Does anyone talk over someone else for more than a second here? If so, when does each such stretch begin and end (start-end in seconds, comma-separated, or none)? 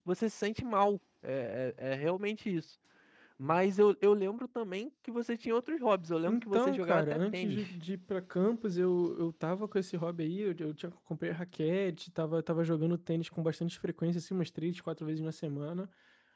6.3-7.6